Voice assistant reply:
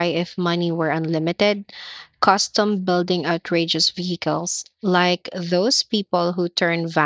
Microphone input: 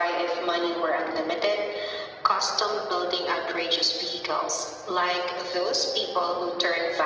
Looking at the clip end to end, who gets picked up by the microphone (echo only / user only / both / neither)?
echo only